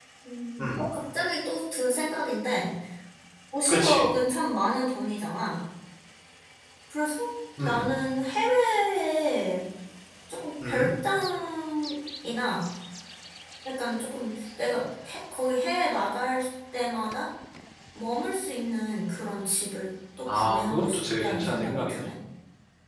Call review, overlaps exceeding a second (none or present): present